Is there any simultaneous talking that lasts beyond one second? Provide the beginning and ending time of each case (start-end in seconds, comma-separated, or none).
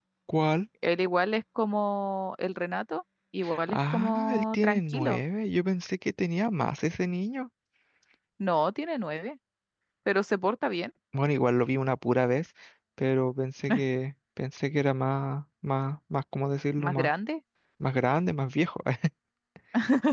3.7-5.2